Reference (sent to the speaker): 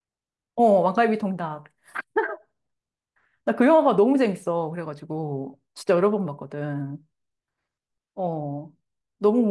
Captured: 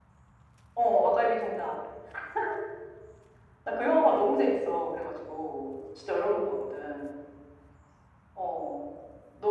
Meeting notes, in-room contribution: none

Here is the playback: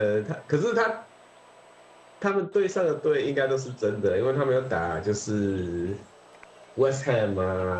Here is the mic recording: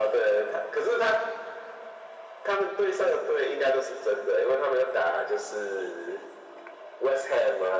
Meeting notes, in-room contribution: none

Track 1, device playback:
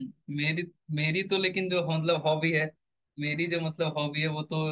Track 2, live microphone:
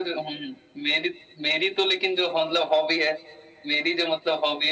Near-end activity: none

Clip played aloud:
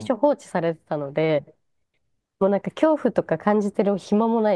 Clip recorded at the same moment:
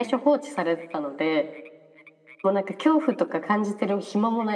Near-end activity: none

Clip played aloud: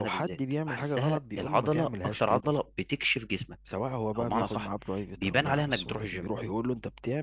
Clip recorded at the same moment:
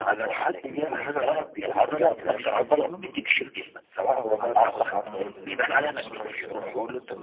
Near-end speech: present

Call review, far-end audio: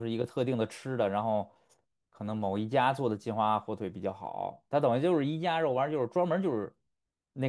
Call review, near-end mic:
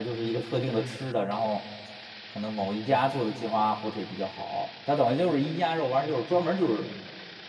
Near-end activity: none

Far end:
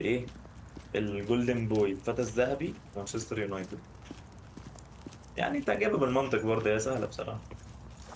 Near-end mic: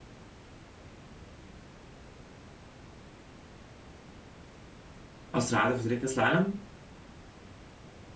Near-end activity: present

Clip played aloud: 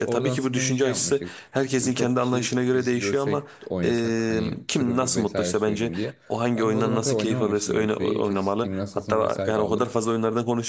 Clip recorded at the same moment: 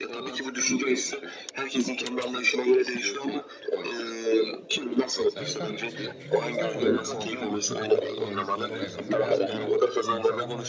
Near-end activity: present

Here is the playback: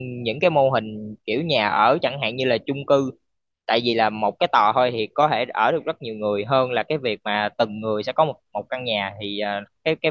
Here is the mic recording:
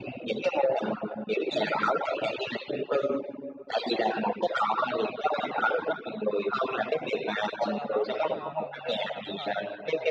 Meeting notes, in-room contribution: present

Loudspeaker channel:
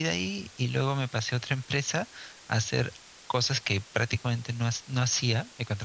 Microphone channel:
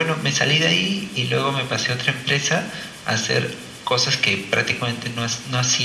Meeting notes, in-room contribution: none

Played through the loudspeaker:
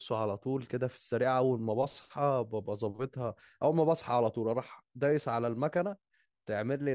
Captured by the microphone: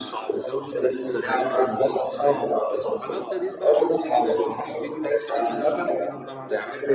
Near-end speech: present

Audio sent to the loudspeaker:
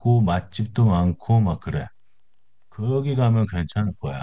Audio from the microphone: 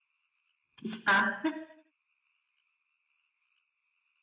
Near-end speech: present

